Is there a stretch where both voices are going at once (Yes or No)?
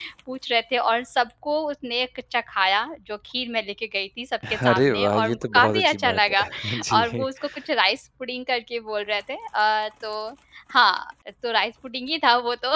Yes